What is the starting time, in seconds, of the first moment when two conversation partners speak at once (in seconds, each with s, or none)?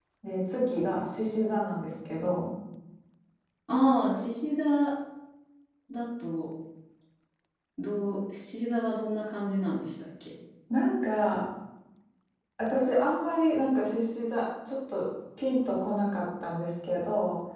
none